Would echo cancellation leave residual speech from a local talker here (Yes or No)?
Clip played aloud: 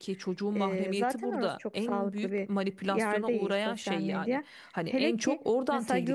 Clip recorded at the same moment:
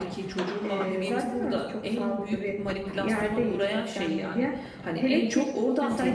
No